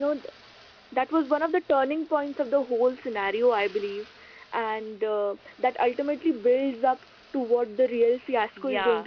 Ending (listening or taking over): taking over